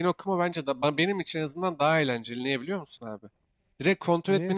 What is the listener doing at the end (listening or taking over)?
listening